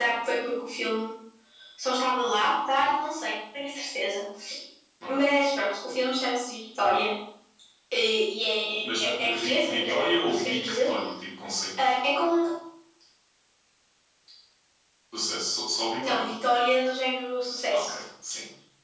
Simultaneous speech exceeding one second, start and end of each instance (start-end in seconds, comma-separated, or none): 9.0-10.9